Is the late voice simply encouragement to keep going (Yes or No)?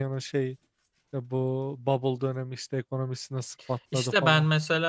No